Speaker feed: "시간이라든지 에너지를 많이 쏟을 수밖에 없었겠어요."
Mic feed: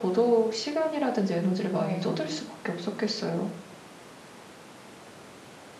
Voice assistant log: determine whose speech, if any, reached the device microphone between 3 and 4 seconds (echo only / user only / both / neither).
echo only